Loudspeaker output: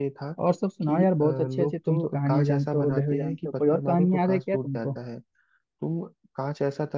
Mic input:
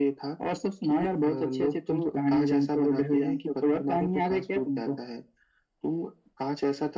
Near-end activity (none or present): none